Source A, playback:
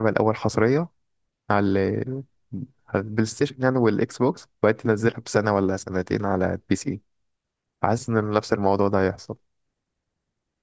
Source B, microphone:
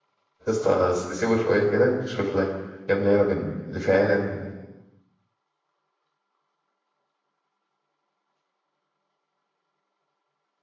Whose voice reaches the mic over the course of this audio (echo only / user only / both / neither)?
user only